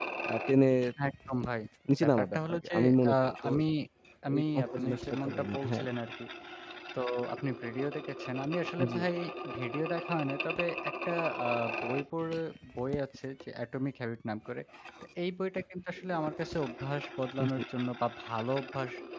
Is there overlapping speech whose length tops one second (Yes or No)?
Yes